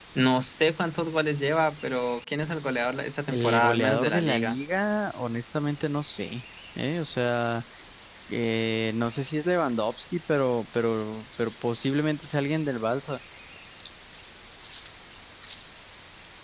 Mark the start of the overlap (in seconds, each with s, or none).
3.3 s